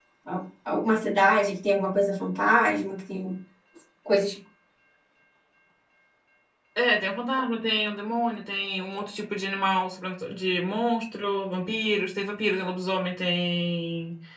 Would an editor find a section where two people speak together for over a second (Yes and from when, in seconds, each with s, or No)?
No